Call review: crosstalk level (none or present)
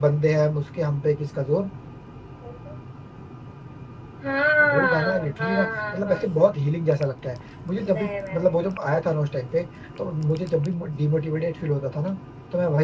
present